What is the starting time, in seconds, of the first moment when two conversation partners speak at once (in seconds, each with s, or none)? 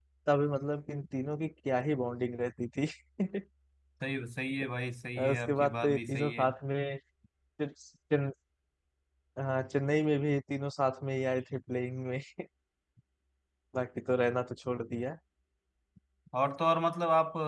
5.2 s